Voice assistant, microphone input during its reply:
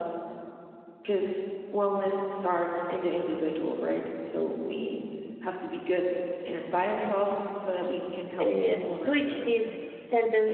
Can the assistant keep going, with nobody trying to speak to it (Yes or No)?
No